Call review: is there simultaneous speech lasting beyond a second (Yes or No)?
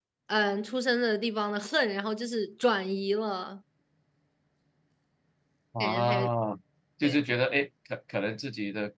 No